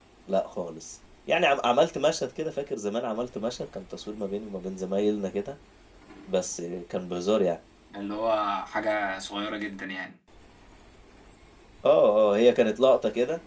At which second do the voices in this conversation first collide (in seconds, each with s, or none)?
none